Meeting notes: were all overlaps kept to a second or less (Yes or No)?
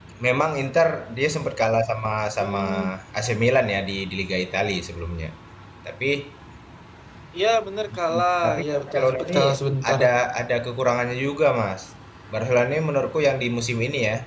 No